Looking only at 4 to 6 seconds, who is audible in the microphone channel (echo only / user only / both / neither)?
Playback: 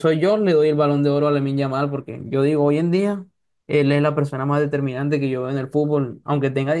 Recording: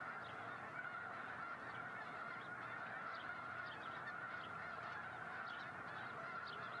neither